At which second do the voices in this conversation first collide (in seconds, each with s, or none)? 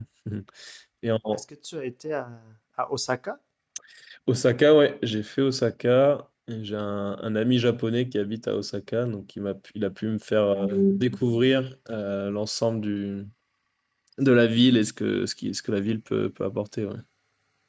none